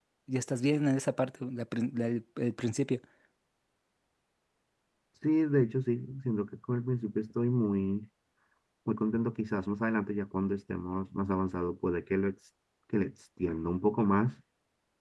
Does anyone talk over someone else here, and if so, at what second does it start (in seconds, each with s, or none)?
none